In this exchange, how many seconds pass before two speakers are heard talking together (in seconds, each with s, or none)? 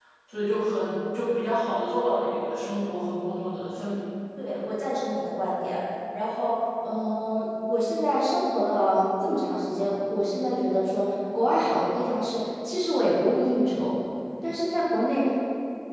none